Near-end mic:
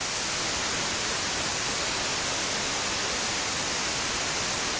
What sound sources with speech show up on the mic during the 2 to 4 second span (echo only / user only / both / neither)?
neither